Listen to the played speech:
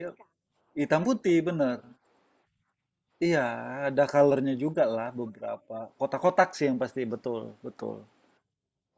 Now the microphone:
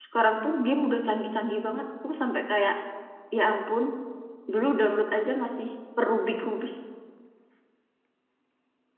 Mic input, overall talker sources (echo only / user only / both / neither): user only